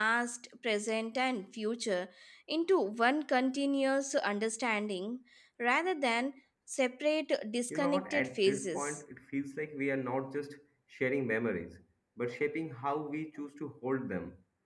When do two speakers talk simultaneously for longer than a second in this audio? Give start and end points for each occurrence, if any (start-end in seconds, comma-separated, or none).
7.7-9.0